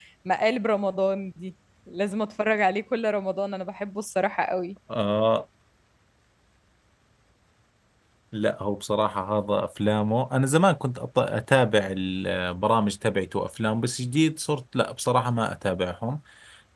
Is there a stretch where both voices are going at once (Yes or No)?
No